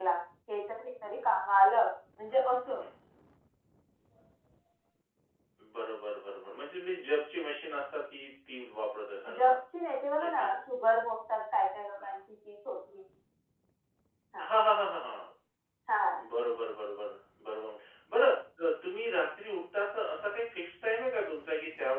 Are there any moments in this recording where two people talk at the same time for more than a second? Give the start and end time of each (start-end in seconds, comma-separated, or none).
none